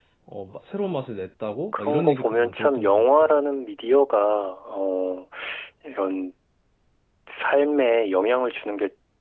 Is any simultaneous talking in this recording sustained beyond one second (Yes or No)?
Yes